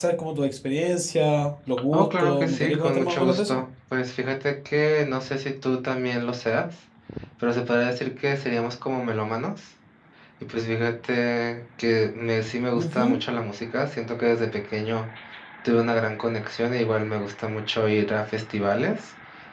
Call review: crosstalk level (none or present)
present